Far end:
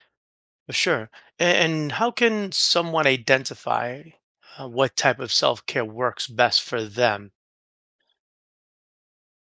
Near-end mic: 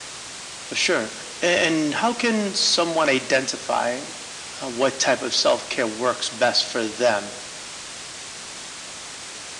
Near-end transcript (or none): none